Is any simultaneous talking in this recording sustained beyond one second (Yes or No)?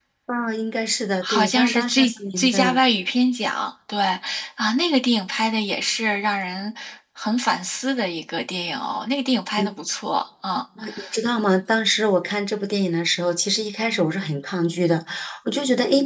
Yes